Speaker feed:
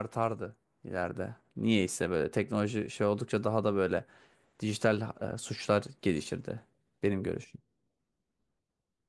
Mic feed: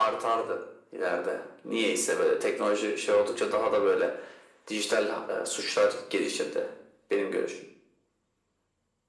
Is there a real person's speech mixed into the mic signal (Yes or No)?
No